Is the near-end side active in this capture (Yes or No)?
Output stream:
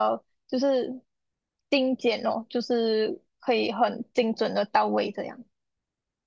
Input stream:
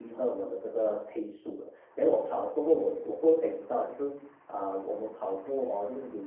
Yes